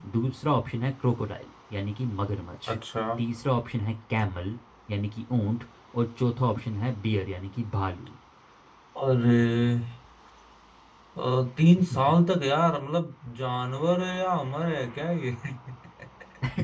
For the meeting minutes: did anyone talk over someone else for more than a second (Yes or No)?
No